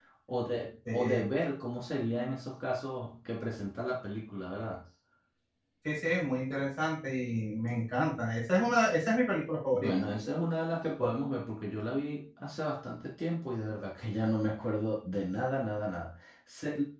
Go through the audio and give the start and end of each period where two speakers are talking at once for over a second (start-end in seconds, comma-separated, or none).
none